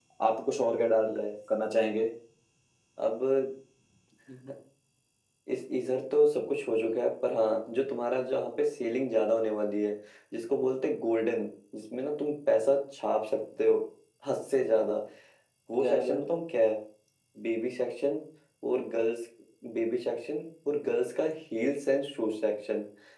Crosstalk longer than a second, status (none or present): none